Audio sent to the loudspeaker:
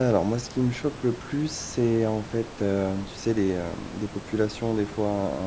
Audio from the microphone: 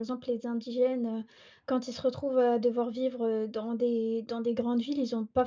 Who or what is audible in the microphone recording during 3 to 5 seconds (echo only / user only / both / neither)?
user only